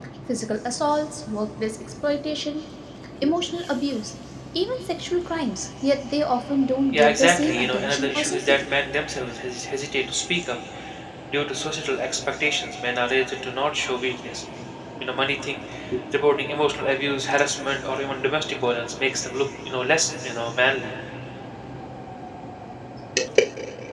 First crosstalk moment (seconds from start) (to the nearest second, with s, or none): 7 s